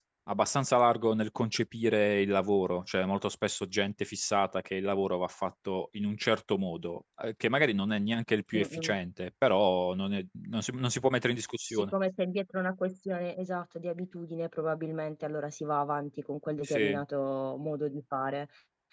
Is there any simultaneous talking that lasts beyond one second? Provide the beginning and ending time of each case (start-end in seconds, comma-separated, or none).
none